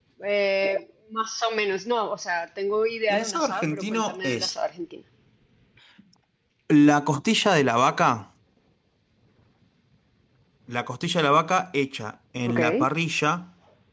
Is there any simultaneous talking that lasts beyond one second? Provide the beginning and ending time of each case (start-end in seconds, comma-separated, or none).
3.1-4.5